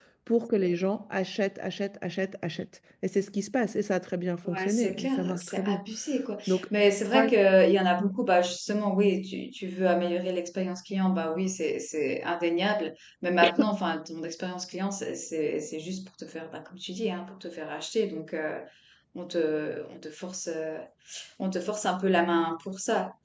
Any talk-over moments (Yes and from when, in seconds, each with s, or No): Yes, from 4.4 s